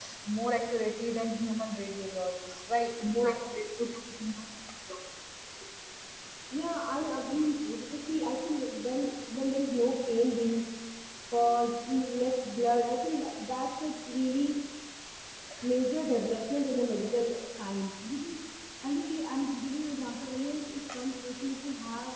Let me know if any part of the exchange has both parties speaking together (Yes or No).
No